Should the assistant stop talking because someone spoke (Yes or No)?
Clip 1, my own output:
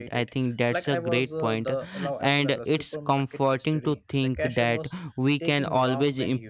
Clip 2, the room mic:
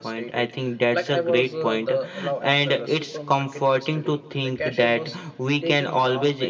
No